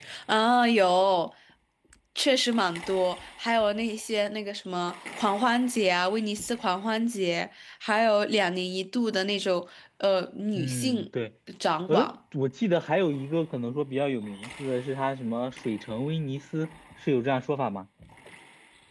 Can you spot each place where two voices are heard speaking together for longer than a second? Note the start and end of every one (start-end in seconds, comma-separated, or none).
none